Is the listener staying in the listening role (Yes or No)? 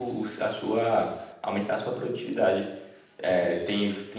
Yes